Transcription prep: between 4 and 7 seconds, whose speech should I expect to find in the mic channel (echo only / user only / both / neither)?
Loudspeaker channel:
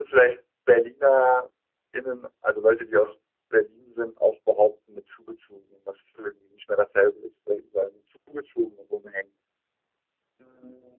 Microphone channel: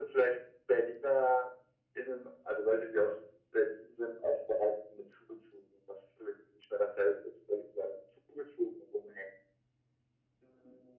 echo only